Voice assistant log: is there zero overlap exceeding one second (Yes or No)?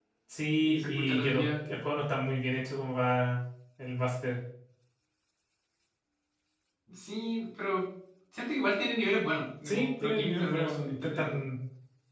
No